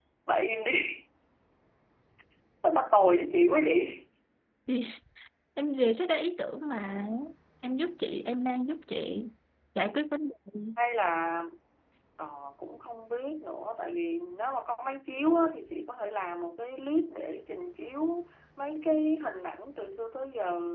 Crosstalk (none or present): none